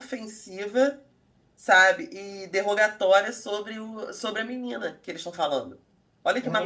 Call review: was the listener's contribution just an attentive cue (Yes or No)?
No